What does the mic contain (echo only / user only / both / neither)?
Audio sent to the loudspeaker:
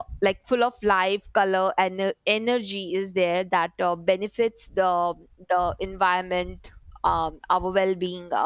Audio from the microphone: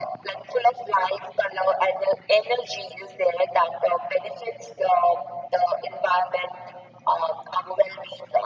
echo only